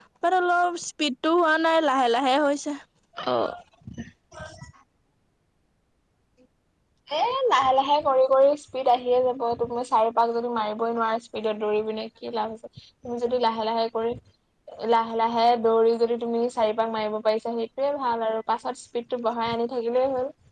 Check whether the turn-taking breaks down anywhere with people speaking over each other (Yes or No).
No